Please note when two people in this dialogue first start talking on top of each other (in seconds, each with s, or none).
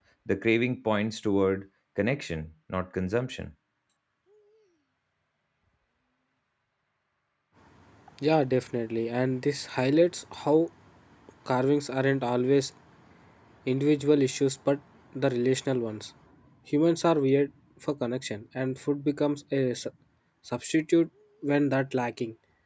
none